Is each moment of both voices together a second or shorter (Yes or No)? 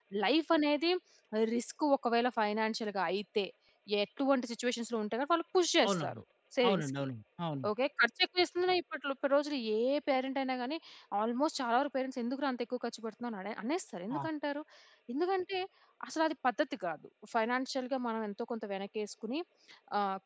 Yes